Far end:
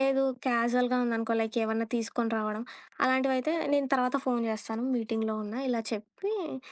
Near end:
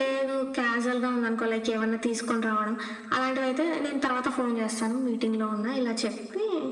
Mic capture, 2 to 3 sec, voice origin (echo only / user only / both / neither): echo only